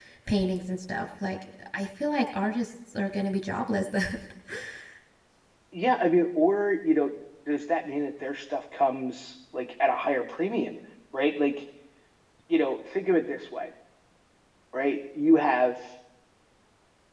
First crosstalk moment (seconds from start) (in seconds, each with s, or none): none